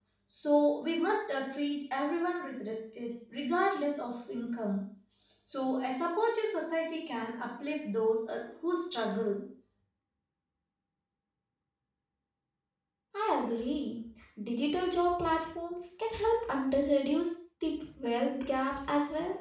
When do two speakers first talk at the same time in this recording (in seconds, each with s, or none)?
none